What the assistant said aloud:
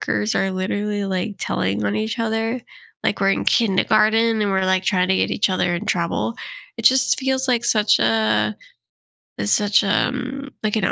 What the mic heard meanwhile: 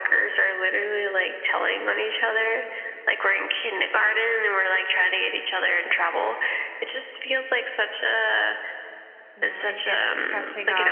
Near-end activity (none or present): present